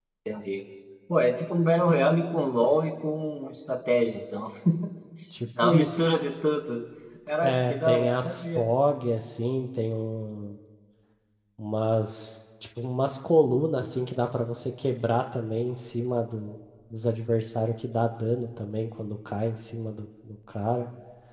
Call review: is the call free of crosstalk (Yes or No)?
No